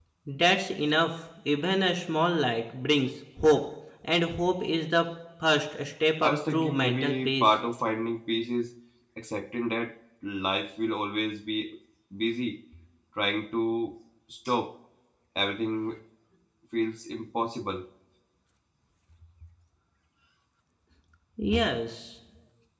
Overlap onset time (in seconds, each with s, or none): 6.2 s